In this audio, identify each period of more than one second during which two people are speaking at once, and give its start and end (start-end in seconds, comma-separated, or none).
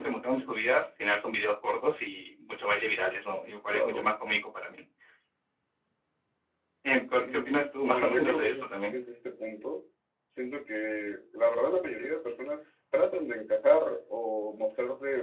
7.2-9.0